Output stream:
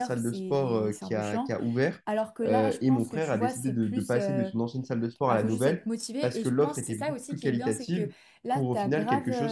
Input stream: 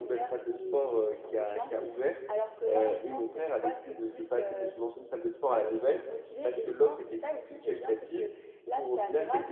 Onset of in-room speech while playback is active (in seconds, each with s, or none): none